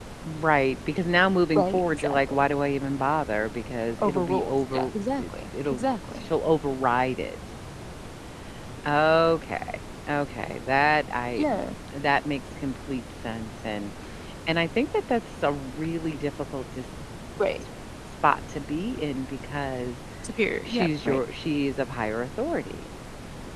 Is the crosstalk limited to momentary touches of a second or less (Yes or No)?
No